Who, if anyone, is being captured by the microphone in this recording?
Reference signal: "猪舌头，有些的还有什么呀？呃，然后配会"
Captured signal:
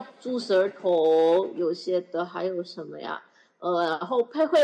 echo only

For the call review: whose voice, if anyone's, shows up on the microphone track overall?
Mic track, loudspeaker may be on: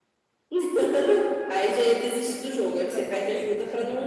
both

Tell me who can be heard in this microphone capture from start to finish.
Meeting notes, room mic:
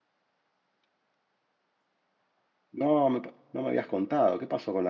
user only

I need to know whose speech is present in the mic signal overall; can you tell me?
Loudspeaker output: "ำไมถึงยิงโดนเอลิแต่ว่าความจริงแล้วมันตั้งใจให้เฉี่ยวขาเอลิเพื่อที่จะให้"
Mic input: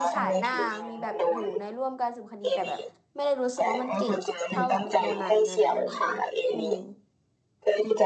both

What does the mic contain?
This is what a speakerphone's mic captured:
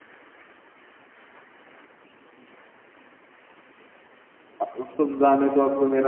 user only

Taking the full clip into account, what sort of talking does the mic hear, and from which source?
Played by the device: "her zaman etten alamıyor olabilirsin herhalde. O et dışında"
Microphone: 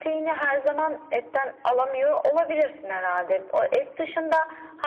echo only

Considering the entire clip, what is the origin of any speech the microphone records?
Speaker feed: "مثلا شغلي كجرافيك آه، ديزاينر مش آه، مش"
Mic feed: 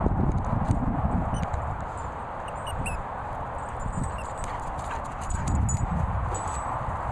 neither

